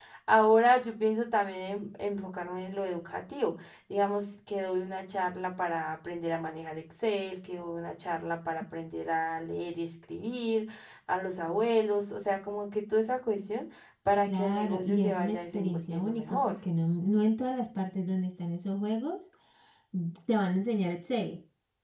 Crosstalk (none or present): present